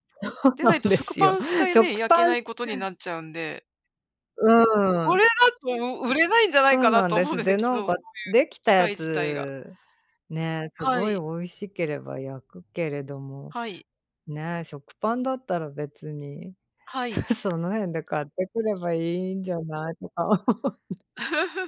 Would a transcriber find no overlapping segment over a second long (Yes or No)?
No